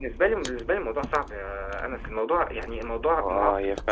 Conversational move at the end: taking over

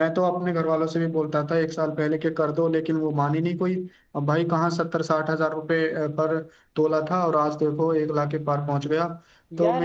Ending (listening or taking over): taking over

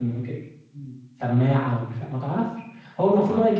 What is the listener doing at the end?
listening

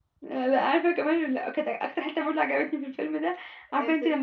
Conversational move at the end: listening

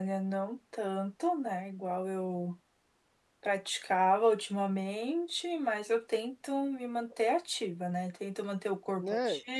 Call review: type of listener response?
listening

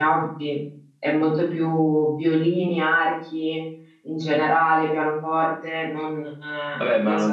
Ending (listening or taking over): taking over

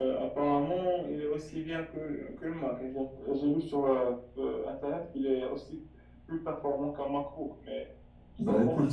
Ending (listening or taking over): taking over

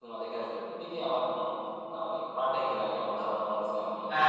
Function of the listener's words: taking over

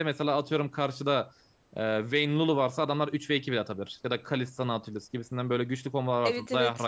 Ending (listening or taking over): listening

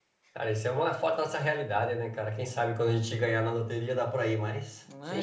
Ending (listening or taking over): taking over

